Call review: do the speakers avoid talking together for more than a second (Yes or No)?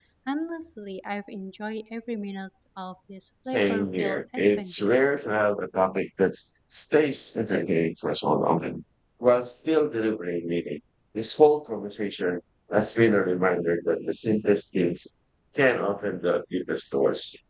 No